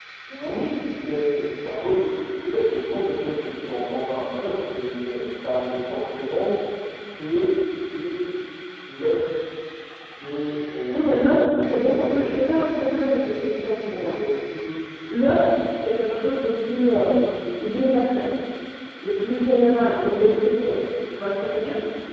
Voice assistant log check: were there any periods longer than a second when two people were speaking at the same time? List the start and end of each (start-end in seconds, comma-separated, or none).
10.9-12.6